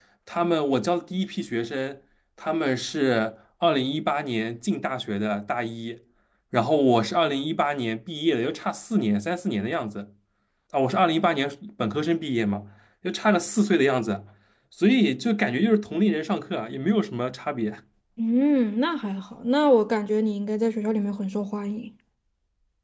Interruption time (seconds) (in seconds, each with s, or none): none